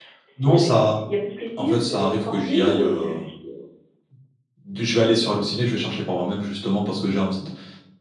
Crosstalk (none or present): present